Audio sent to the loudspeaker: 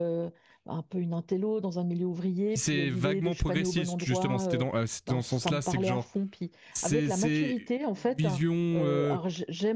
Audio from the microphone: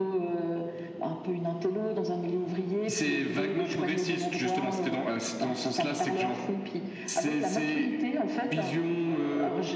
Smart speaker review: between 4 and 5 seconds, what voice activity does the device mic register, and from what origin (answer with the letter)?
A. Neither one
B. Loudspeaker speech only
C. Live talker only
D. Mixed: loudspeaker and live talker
B